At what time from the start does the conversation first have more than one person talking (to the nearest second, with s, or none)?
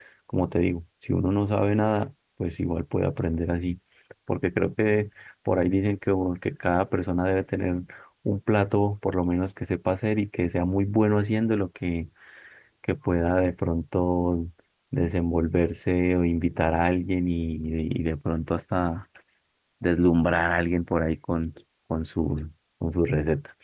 none